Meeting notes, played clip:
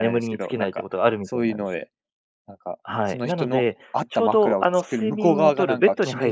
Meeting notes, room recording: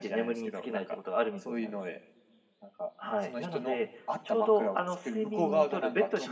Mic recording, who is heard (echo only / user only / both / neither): echo only